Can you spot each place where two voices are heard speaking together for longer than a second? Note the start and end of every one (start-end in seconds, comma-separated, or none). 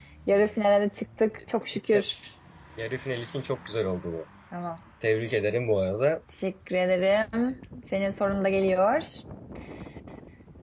none